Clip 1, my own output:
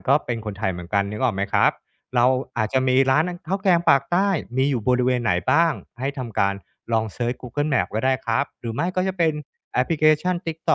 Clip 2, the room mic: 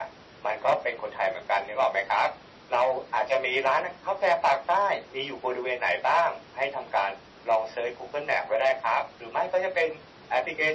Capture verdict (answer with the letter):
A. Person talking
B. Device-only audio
B